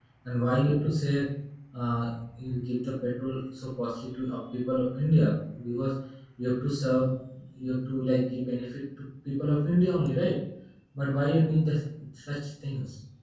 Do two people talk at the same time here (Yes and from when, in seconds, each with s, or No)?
No